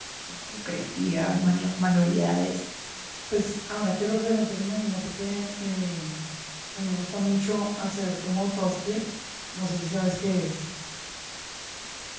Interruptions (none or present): none